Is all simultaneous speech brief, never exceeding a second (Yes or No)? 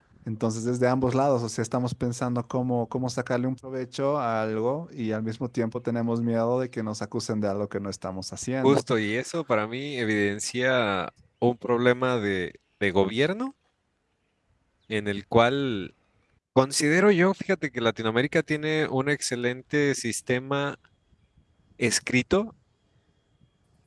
Yes